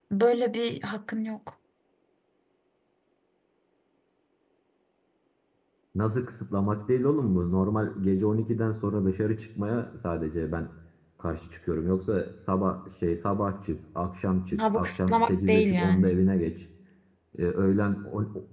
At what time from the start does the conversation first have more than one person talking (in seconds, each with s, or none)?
14.5 s